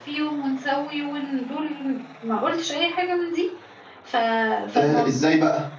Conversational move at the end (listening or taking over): taking over